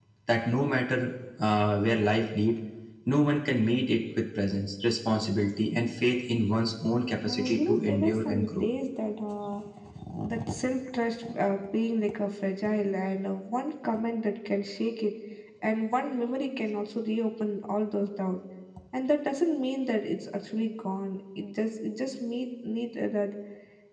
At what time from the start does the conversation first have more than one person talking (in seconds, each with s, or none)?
7.3 s